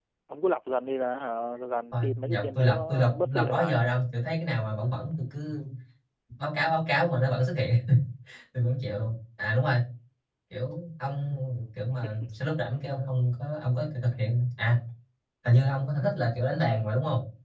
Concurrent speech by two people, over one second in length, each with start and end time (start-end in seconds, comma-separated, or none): 1.9-3.8